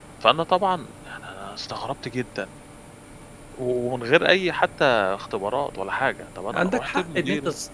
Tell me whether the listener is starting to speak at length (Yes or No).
Yes